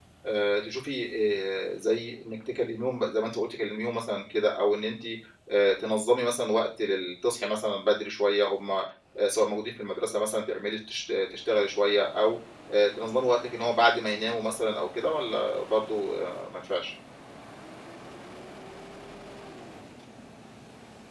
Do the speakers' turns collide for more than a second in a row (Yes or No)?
No